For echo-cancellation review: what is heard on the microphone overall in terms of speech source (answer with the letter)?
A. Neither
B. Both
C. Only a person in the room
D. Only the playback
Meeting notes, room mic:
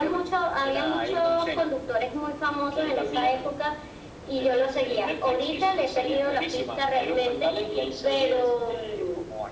D